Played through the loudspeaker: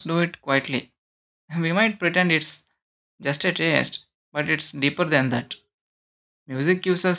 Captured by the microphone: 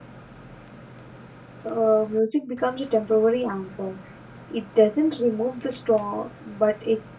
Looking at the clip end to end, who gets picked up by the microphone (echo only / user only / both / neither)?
user only